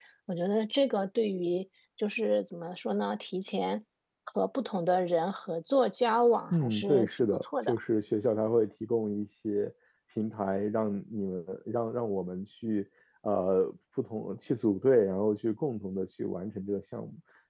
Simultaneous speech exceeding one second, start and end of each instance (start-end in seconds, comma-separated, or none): 6.5-7.8